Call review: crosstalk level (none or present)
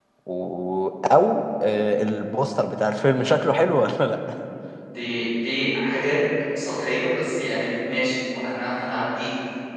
none